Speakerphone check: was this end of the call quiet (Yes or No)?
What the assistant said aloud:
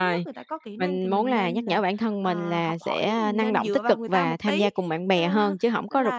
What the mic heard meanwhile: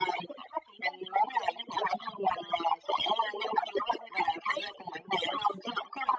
Yes